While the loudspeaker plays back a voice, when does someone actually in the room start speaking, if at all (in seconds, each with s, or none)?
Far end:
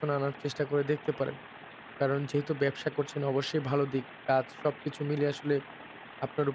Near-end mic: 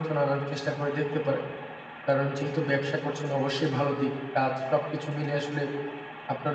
none